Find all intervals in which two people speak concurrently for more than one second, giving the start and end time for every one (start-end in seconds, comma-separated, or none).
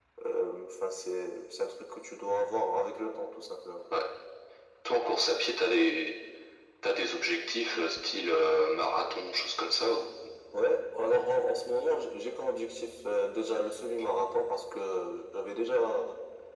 none